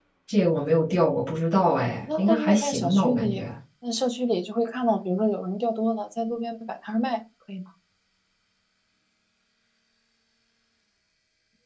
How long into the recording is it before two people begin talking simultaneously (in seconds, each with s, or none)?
1.8 s